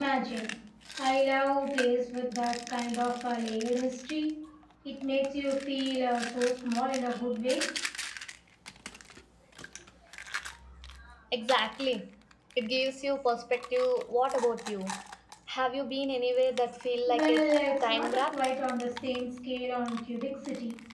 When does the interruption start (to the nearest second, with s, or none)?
17 s